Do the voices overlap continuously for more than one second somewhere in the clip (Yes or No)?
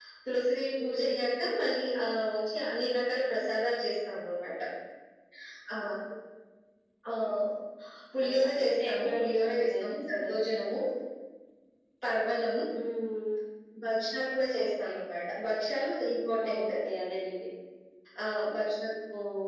Yes